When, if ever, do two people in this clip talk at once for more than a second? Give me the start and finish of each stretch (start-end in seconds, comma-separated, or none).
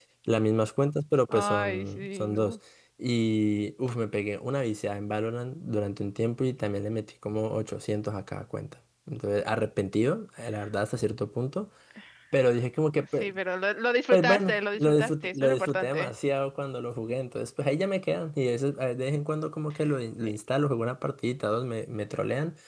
1.3-2.6, 14.1-16.1